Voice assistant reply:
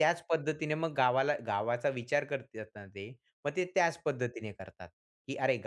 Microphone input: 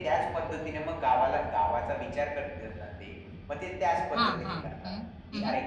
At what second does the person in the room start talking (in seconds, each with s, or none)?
4.2 s